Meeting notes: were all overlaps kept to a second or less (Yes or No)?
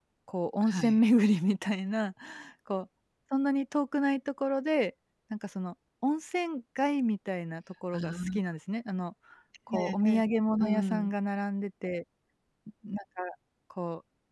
Yes